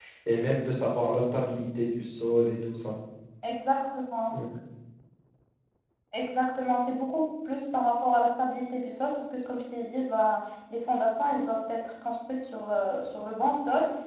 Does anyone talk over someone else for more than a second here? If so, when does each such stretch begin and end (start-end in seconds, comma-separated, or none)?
none